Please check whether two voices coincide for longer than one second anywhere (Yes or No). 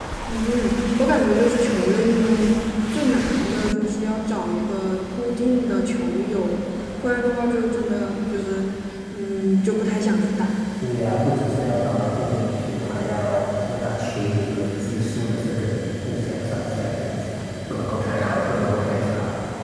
No